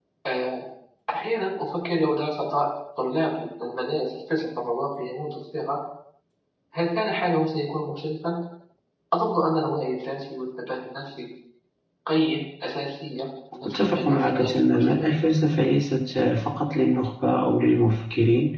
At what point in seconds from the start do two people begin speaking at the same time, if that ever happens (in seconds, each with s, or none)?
13.6 s